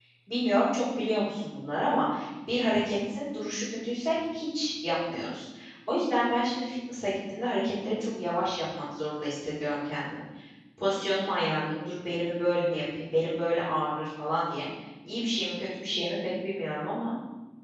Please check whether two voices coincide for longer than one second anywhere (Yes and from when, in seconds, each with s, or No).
No